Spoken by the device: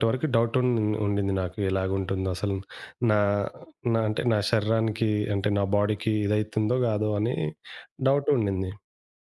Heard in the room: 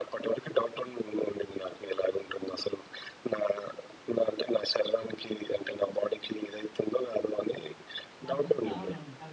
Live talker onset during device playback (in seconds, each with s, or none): 8.3 s